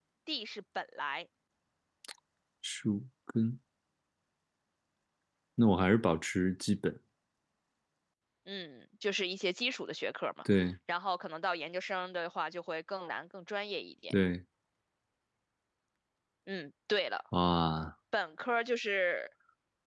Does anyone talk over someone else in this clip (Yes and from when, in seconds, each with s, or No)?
No